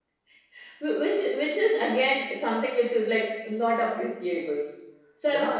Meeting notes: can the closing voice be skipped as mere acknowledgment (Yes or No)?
No